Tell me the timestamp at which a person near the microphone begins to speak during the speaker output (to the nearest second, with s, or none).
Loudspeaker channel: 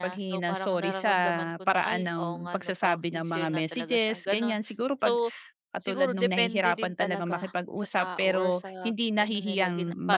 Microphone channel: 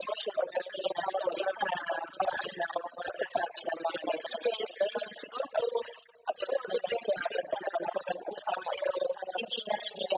none